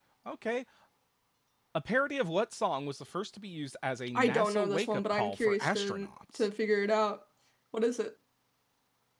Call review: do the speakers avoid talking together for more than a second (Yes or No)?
No